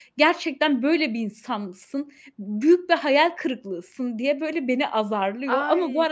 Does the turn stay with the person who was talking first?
No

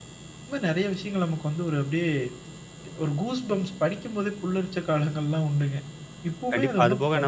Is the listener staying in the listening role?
No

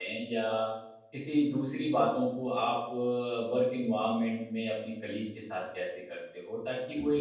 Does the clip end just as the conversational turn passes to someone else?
No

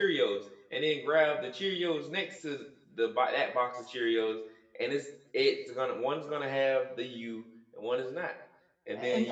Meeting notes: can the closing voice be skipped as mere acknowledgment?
No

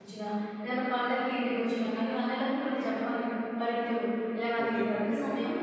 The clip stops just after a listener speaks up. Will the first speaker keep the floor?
Yes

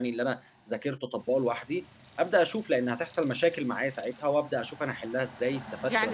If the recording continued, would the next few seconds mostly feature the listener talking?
Yes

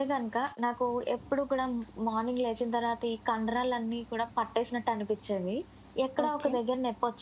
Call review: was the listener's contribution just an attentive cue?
Yes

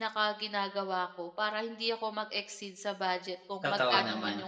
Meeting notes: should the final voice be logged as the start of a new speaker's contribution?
No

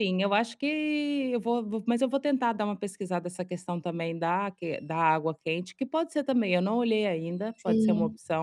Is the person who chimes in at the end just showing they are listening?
No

